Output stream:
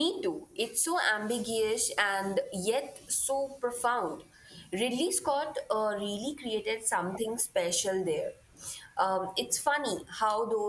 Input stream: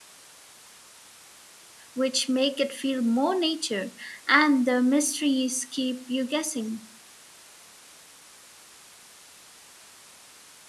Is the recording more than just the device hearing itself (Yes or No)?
Yes